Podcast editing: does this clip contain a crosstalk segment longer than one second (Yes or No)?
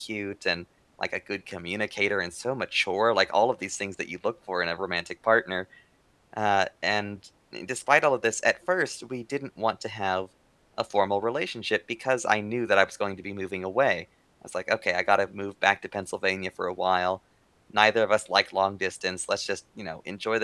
No